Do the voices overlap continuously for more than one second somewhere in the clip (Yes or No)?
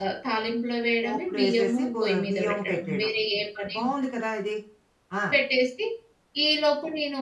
Yes